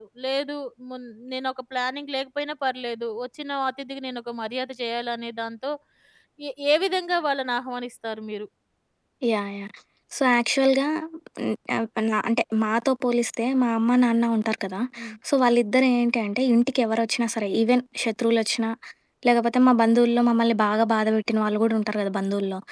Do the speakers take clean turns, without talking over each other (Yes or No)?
Yes